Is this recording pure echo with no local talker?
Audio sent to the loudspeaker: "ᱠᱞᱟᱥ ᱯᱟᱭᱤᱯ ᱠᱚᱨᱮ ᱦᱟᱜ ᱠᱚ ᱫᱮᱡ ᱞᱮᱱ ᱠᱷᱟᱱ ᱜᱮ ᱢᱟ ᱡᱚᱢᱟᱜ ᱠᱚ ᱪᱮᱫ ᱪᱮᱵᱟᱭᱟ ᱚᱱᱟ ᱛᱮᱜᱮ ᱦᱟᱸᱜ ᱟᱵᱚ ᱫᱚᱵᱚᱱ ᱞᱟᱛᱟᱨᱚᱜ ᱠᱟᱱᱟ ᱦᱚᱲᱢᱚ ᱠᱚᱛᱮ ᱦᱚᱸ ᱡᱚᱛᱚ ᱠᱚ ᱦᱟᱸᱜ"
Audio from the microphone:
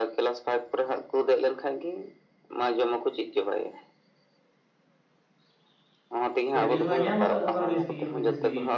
No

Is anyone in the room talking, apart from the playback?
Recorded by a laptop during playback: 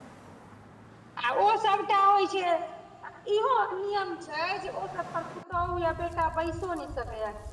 Yes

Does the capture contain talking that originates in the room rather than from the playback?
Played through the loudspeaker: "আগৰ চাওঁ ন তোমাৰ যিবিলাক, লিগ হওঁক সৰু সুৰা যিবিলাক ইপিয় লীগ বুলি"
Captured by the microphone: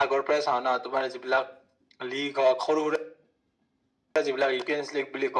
No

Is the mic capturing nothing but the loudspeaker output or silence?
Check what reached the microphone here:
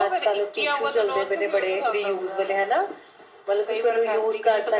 Yes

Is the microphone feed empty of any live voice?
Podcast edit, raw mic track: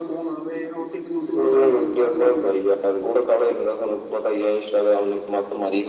Yes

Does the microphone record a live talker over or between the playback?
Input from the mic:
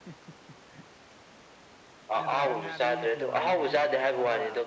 Yes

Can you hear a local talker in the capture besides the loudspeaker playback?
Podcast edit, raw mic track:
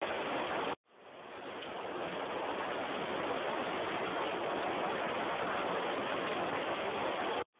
No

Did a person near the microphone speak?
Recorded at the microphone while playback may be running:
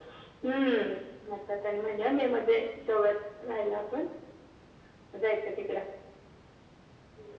No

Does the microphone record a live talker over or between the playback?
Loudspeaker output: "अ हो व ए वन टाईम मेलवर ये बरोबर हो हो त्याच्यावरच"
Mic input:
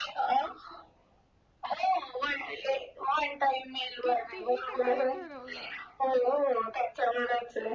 Yes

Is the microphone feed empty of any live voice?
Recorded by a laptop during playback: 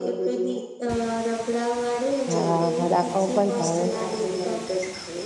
No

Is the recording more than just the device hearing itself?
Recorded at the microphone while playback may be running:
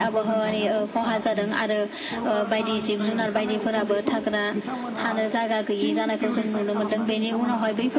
Yes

